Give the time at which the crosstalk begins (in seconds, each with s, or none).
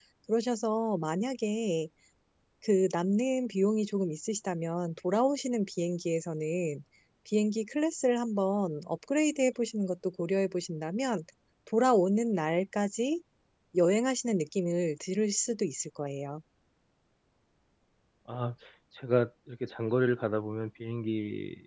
none